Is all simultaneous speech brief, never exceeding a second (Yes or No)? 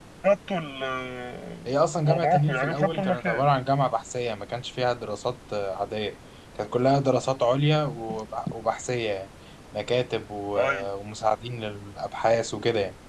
No